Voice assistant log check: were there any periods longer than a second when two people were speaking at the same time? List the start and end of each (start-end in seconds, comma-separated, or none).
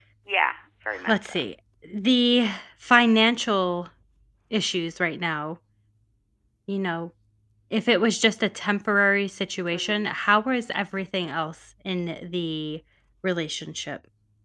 none